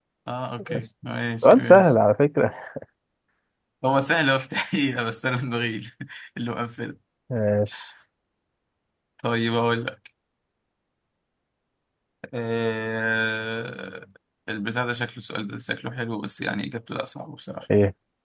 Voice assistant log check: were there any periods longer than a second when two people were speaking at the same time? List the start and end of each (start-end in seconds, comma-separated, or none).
none